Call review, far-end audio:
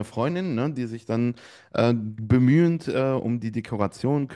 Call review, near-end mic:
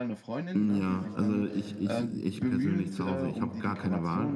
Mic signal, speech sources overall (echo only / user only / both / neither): both